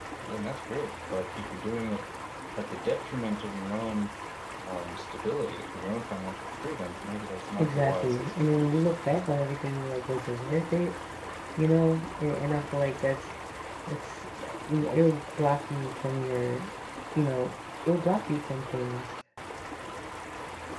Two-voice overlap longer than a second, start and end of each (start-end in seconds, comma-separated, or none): 7.6-9.4